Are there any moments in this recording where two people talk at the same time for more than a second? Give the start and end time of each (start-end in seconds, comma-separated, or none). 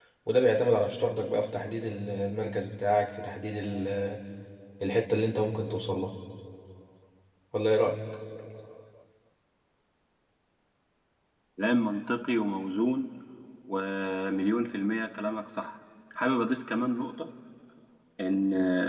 none